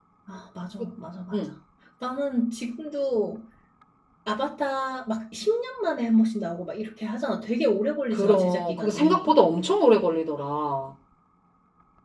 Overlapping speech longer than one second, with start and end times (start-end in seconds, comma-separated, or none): 8.1-9.3